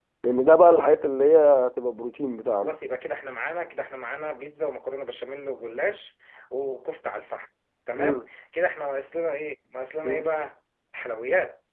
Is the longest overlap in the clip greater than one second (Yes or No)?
No